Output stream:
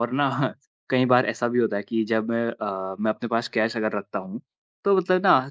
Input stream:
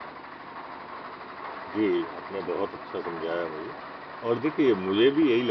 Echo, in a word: none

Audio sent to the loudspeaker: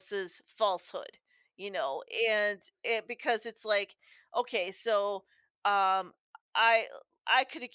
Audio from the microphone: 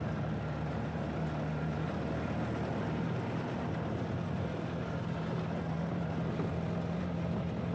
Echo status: none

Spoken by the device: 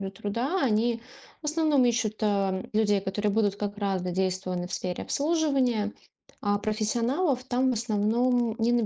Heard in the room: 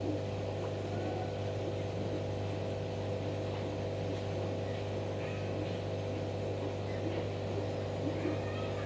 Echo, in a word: none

